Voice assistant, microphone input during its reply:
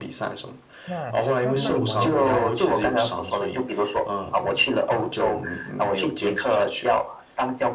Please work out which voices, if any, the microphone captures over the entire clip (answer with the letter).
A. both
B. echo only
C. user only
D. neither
A